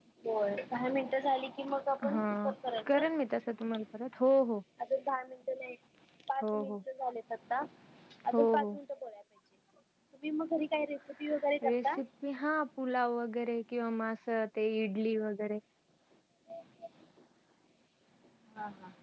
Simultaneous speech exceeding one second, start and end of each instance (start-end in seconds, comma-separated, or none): none